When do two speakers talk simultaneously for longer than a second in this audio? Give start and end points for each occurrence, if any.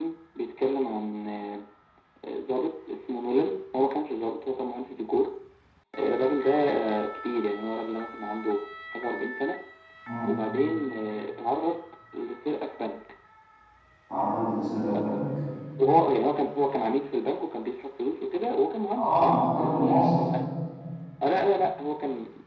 19.0-20.2

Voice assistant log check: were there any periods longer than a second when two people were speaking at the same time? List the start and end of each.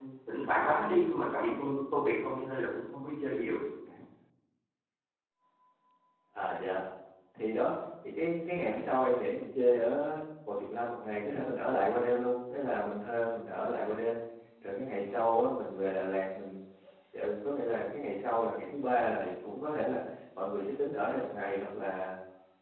none

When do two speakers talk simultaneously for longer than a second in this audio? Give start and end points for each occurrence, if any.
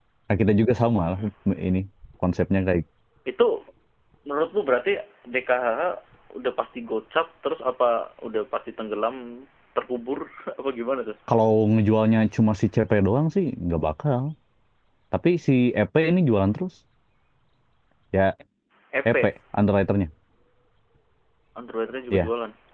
none

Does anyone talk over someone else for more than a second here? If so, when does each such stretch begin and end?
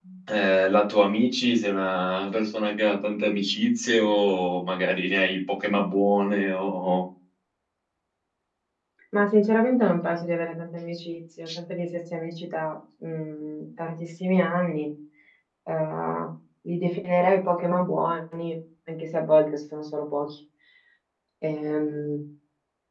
none

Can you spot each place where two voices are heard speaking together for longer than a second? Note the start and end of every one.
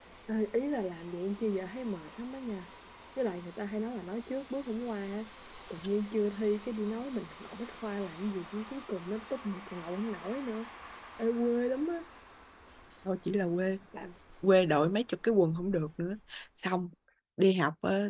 none

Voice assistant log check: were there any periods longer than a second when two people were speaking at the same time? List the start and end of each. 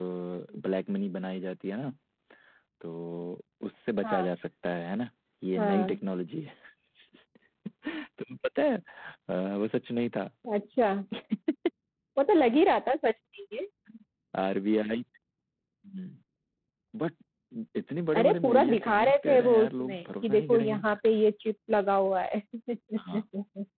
18.1-20.9

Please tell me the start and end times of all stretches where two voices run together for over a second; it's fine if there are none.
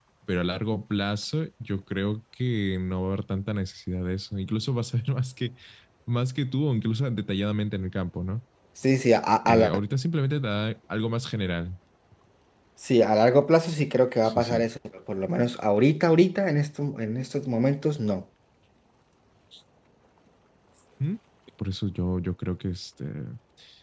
none

